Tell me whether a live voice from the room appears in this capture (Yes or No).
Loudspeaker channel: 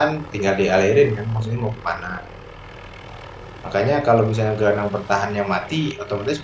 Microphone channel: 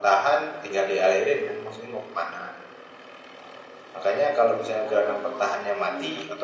Yes